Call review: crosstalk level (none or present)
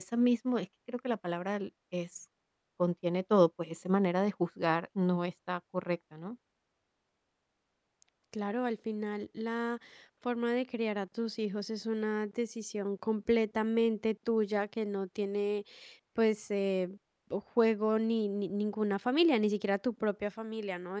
none